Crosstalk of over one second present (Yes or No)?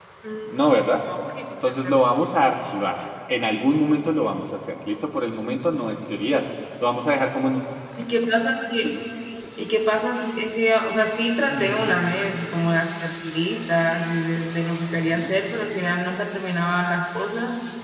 No